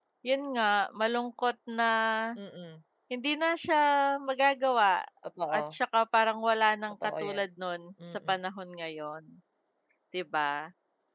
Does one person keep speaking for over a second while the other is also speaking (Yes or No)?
No